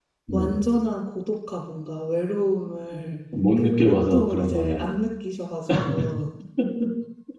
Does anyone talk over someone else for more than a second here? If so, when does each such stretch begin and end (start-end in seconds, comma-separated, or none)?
3.6-4.9